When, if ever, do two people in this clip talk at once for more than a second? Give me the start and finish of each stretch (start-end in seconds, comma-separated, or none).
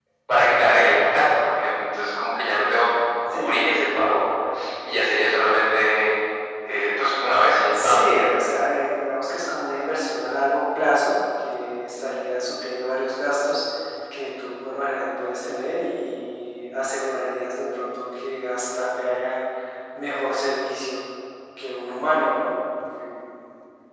none